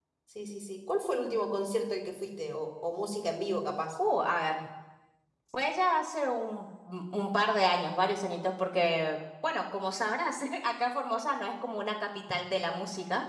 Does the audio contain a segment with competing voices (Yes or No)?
No